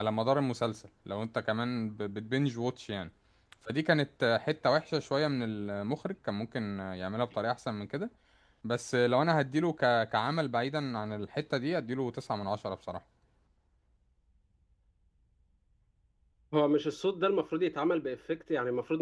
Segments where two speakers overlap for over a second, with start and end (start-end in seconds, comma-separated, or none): none